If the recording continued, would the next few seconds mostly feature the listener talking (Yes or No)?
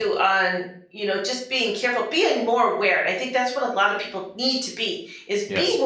No